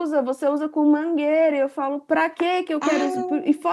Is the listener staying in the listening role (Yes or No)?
Yes